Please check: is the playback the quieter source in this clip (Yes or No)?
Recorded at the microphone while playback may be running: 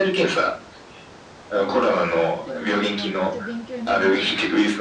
No